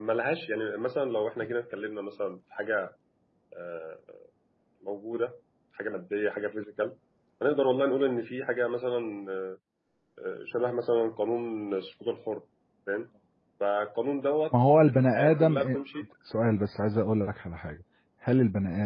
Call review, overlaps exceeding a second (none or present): present